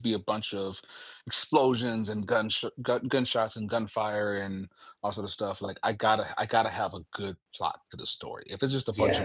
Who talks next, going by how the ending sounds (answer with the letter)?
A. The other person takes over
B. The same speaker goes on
B